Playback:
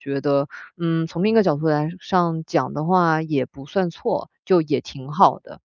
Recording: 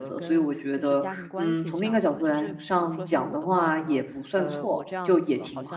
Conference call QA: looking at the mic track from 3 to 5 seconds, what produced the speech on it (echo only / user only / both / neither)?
both